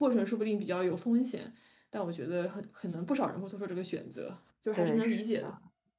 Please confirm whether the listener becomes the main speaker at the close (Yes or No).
Yes